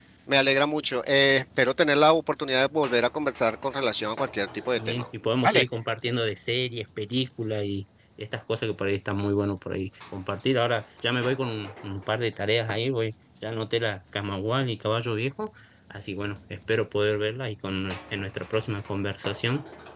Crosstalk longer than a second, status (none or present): none